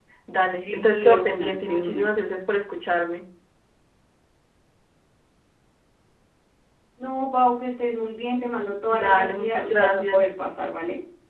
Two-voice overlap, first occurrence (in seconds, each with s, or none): 0.6 s